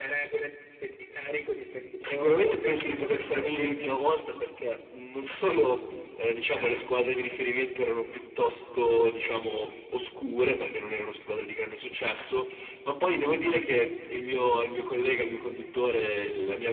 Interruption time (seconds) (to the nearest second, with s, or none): 2 s